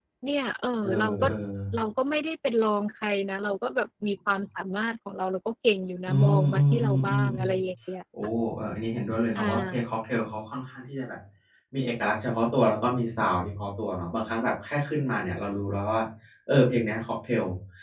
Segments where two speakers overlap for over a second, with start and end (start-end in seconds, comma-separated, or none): 6.1-7.5